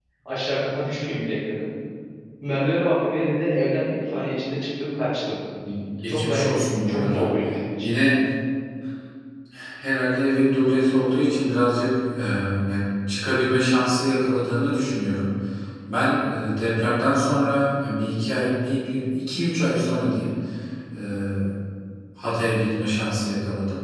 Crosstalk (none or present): present